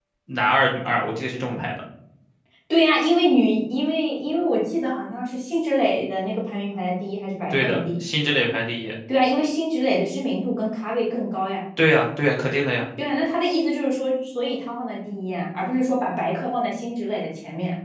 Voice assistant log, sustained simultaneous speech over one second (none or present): none